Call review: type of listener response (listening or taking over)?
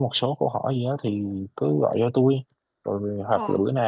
listening